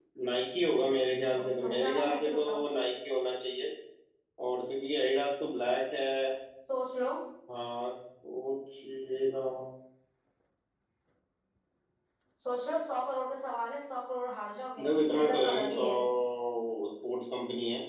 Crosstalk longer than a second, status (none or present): present